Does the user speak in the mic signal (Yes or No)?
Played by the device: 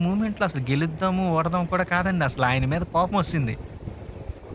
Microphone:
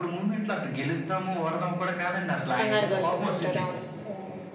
Yes